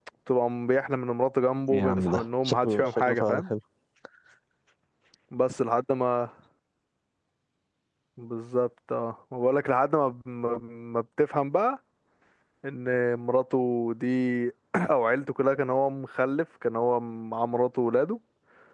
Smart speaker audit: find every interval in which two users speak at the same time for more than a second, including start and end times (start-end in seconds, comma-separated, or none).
1.7-3.4